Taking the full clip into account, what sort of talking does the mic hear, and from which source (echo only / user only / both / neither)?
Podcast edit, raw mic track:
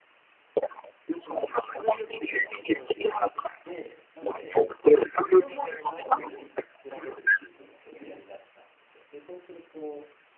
both